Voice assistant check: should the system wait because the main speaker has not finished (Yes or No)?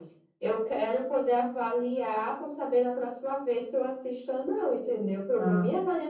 Yes